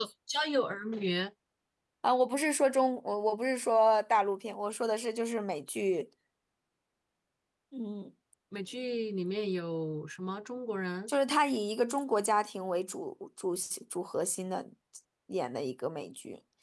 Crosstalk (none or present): none